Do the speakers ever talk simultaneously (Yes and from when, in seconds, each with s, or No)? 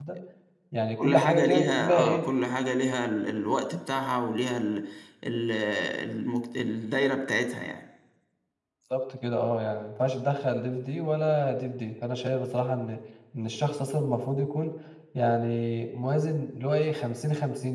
Yes, from 1.0 s